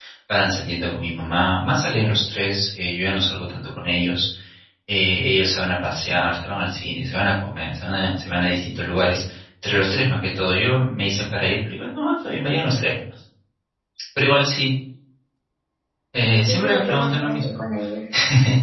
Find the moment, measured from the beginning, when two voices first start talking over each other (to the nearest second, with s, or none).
16 s